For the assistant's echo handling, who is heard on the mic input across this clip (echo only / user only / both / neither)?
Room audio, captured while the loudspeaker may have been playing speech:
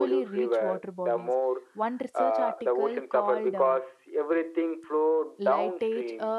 both